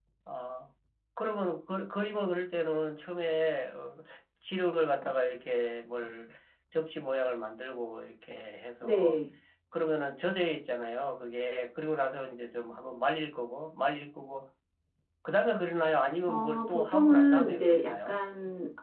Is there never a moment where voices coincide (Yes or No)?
No